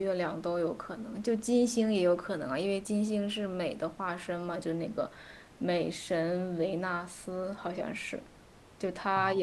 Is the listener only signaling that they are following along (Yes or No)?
Yes